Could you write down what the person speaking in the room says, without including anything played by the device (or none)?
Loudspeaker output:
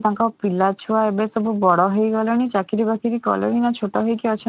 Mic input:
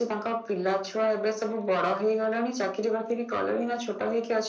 none